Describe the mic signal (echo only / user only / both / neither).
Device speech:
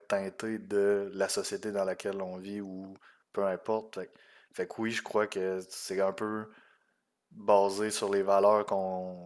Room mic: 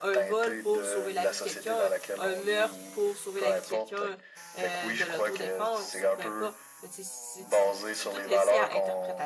both